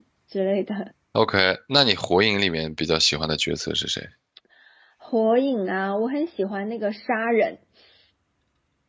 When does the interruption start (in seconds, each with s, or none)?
none